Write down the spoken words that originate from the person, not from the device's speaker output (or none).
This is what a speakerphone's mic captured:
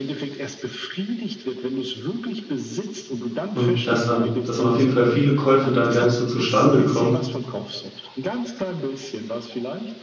Und dass dann dass dann auf jeden Fall viele Käufe dann gar nicht so zustande kommen